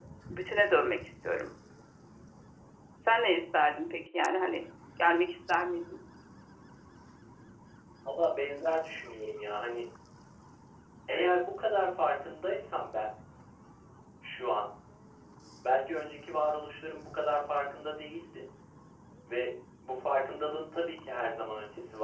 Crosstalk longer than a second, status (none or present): none